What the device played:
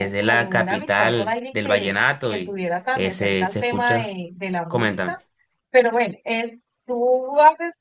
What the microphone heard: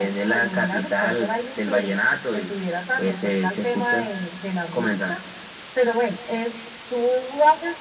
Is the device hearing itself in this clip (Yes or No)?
Yes